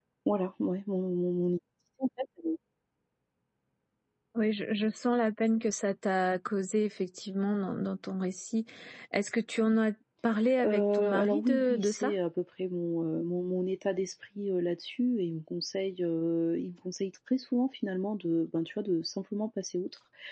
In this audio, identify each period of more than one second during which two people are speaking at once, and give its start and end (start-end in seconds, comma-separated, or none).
10.6-12.1